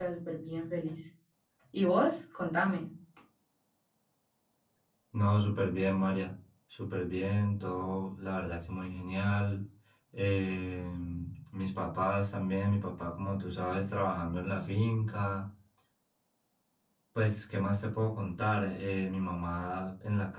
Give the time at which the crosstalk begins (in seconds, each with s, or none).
none